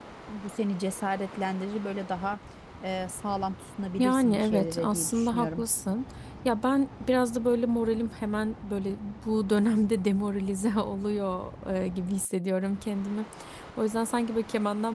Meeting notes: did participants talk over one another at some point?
Yes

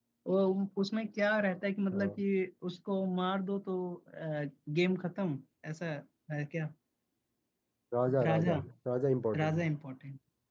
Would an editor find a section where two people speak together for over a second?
No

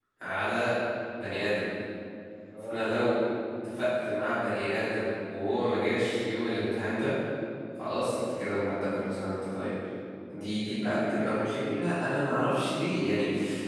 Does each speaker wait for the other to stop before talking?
No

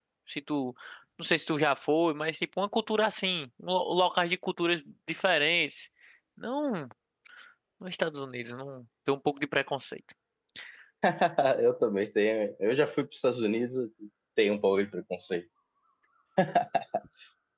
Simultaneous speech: No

